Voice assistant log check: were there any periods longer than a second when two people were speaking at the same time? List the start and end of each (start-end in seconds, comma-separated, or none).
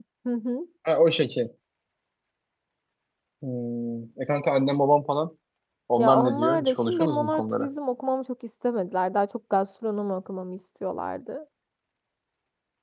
6.0-7.7